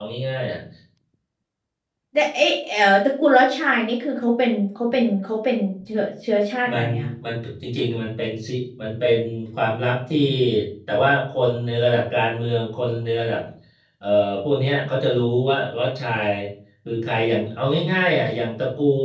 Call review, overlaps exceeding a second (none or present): none